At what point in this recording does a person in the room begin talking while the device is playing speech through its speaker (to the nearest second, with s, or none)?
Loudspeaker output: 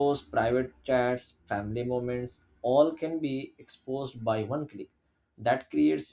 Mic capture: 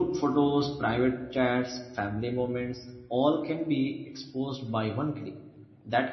none